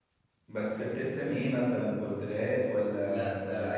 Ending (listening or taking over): taking over